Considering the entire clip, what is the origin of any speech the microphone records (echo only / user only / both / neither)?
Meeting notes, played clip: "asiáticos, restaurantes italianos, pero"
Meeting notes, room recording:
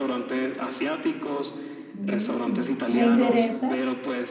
both